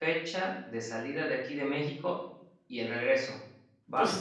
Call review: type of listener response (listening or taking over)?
taking over